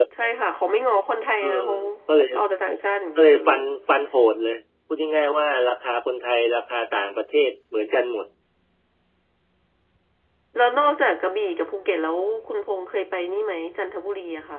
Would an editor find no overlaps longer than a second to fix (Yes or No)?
Yes